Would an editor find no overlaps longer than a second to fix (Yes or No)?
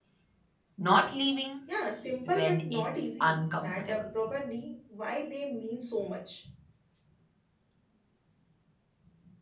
No